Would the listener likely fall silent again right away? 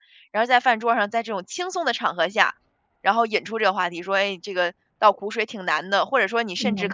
Yes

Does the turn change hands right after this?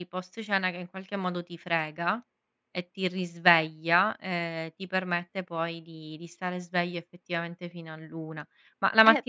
Yes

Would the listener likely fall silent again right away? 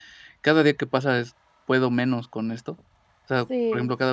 Yes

